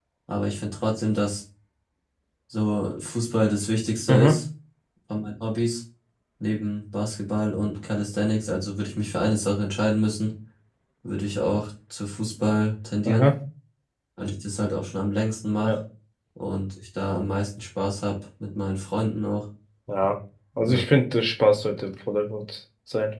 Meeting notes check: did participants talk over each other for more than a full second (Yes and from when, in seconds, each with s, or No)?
No